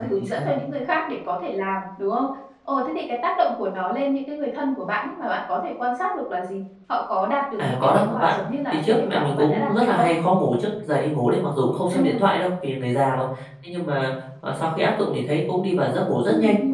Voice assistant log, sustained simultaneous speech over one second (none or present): present